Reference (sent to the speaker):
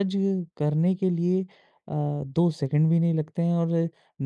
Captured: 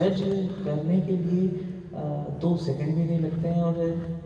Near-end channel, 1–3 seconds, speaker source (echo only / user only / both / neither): echo only